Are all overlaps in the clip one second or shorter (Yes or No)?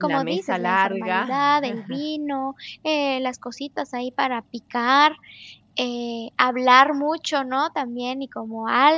No